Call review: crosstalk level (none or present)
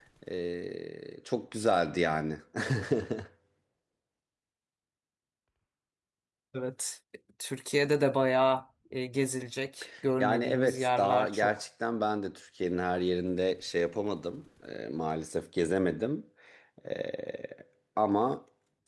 present